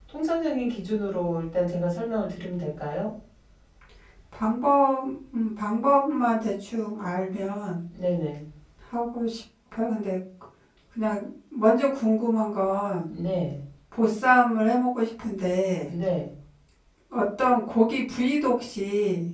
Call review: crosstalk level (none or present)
none